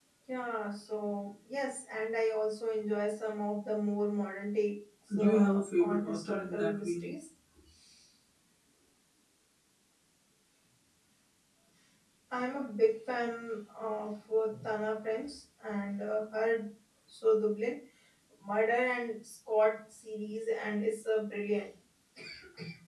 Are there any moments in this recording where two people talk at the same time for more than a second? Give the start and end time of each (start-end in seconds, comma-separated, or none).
5.2-7.1